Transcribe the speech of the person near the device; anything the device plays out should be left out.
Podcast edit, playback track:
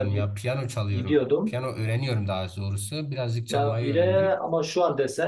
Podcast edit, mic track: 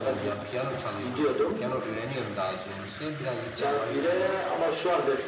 none

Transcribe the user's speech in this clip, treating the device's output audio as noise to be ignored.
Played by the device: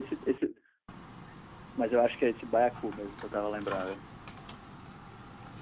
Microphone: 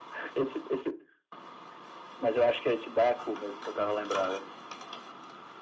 none

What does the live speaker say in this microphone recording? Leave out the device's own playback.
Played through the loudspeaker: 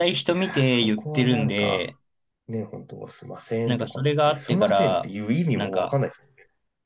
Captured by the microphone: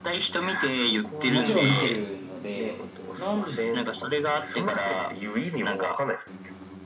もちろん見てるので、なんで、

